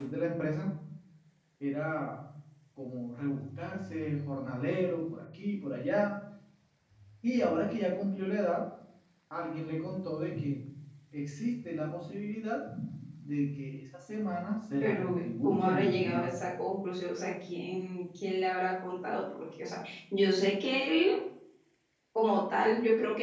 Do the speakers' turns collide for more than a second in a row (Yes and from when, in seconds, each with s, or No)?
Yes, from 14.8 s